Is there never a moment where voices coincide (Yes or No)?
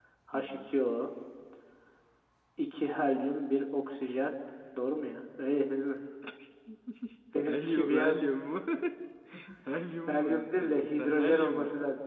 No